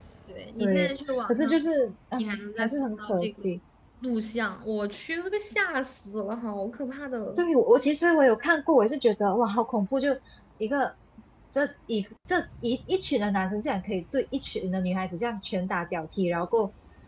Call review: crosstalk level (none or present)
present